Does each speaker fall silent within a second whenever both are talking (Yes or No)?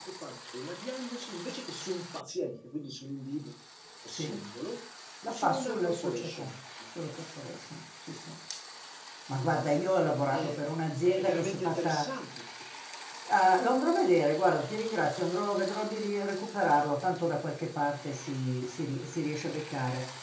No